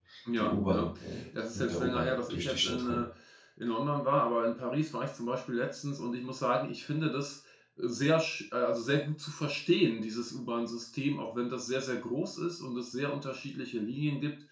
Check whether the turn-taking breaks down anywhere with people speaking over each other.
Yes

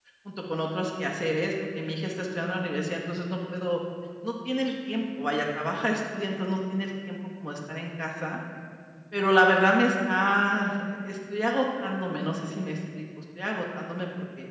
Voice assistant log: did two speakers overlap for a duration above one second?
No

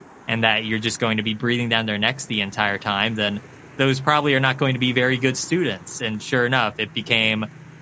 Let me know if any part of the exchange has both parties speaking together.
No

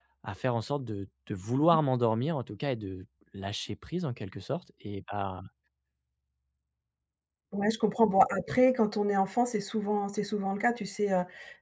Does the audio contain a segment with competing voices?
No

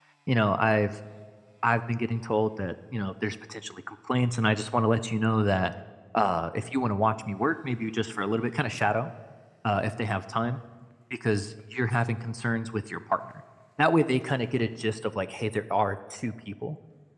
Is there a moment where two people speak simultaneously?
No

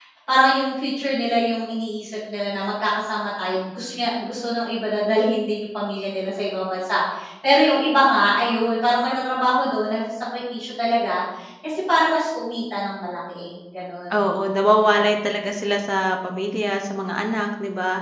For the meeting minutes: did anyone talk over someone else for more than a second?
No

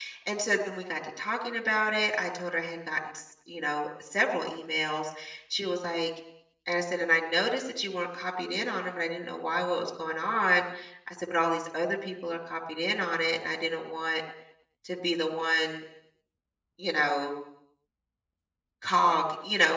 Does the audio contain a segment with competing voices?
No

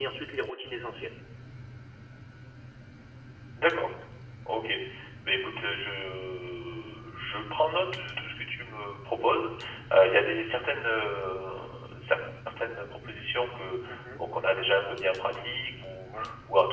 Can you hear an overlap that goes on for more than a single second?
No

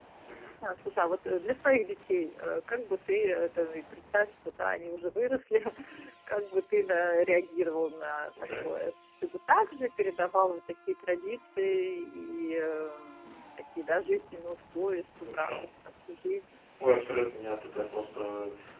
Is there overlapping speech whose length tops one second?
No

